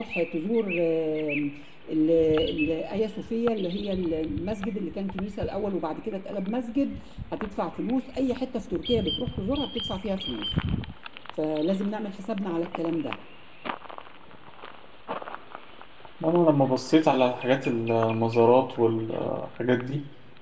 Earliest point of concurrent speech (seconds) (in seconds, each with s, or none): none